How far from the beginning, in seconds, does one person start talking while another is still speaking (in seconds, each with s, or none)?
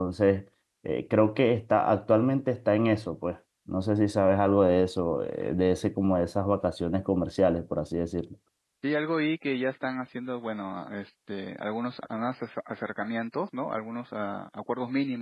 none